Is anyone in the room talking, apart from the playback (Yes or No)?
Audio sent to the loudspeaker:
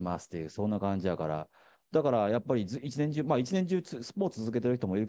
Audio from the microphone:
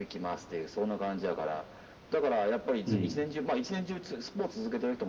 Yes